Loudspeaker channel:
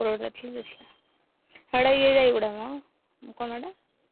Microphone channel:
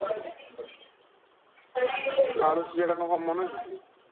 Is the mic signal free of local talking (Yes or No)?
No